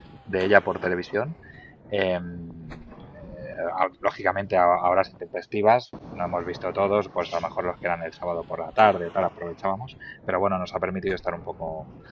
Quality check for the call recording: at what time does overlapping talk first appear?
none

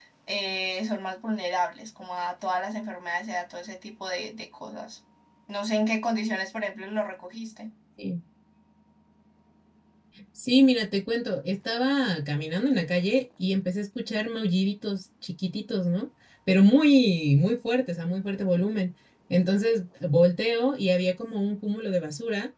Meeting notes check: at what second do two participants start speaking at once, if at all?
none

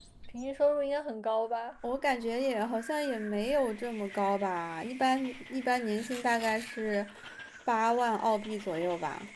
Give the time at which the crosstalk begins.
none

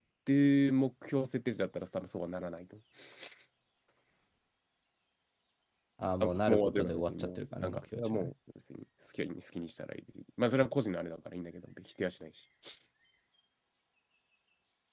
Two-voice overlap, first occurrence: 6 s

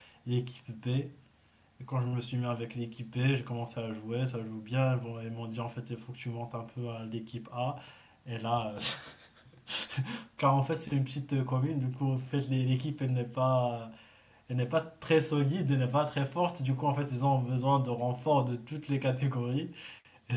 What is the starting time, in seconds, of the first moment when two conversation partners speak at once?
none

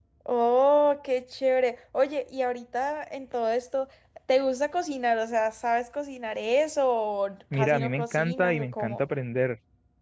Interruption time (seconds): 8 s

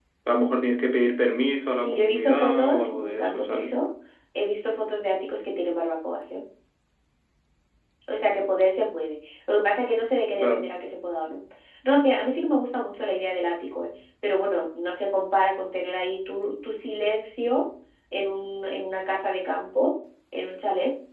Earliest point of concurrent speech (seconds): 2 s

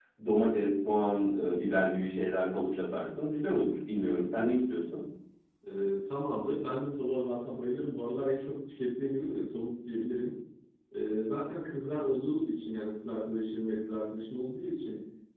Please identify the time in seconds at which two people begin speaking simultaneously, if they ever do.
none

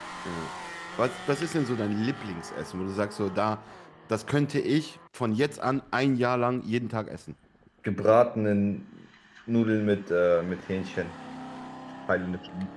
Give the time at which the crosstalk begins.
none

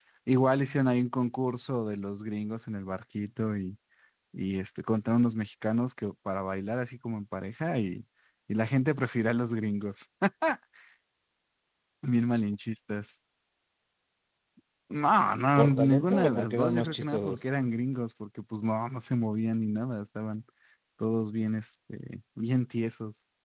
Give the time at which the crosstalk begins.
16 s

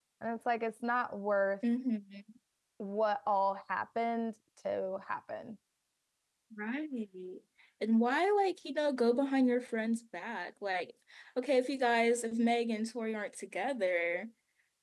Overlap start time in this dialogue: none

